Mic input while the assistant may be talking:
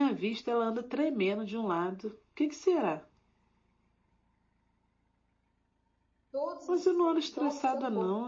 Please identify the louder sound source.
echo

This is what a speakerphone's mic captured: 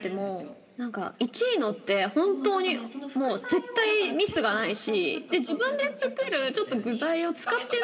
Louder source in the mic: echo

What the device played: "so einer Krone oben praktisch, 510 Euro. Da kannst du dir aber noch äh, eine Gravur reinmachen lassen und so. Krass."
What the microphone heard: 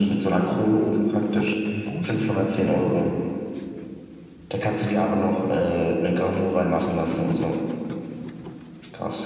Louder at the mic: echo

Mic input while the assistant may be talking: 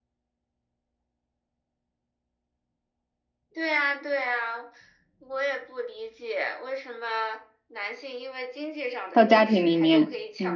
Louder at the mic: user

